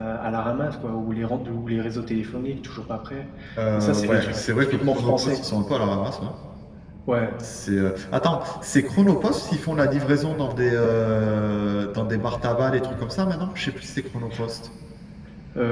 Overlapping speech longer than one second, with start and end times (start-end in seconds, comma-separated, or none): 3.8-5.4